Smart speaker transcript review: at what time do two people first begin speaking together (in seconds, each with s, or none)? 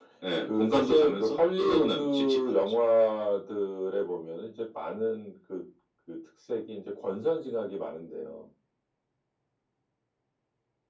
0.6 s